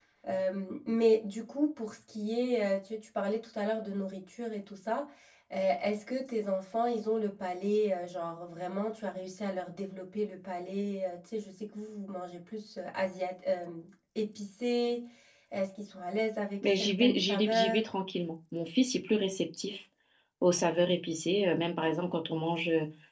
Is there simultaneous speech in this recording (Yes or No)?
Yes